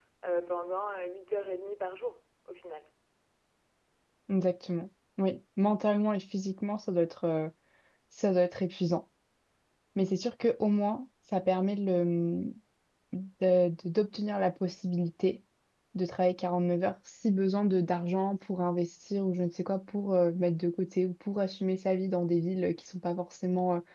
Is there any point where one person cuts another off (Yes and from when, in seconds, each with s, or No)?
No